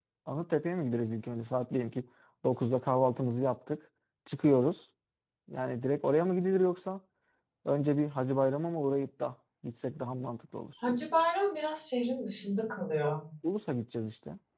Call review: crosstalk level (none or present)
none